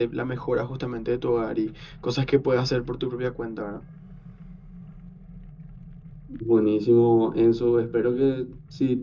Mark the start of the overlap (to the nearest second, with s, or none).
none